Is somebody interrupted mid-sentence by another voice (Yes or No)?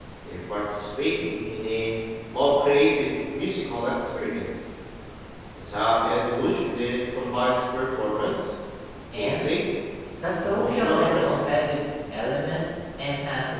Yes